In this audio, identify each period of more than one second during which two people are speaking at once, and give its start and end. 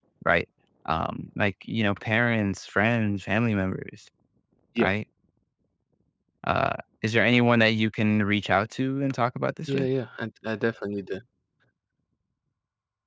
none

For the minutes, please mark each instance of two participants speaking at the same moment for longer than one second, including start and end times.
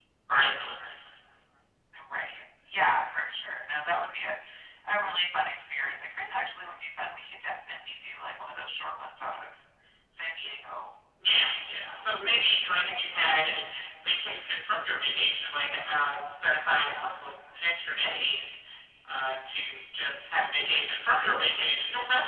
none

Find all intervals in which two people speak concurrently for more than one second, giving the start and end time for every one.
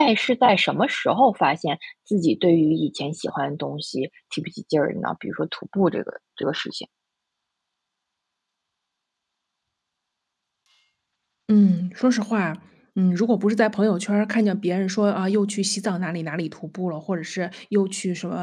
none

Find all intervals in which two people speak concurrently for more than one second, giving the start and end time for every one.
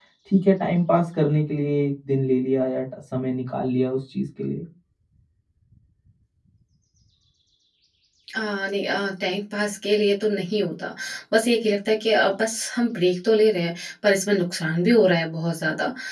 none

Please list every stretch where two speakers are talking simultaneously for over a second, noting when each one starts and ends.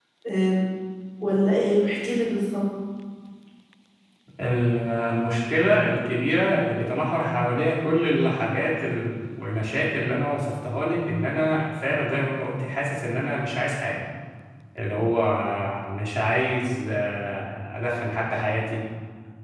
none

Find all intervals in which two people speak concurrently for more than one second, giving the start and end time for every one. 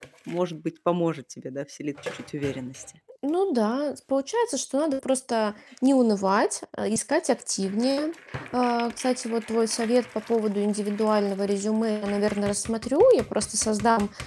none

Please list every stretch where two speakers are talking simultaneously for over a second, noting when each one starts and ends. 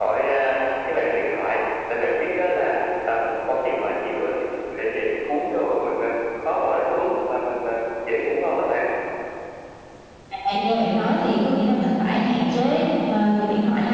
none

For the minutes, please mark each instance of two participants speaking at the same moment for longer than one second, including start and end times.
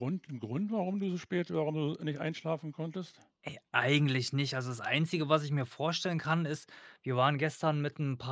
none

